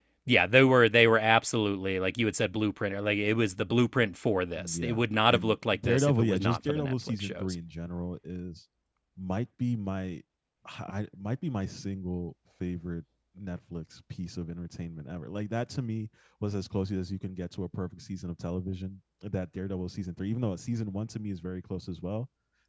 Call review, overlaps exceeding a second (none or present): present